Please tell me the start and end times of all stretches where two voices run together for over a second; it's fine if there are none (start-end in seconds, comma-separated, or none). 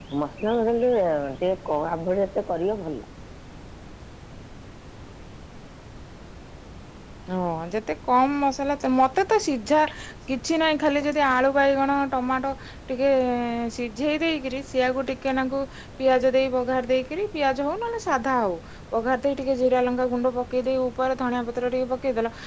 none